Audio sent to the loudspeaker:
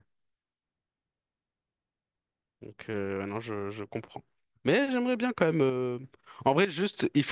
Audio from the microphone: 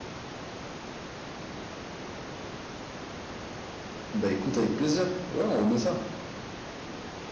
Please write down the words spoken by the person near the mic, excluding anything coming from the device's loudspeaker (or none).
Bah écoute, avec plaisir. Ouais, on remet ça.